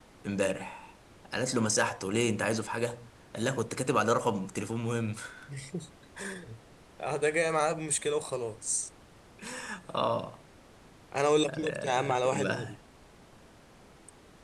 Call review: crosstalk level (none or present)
present